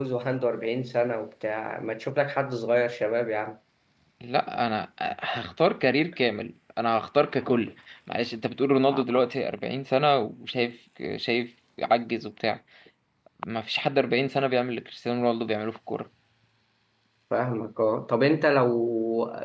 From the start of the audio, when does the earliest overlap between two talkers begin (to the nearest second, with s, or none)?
none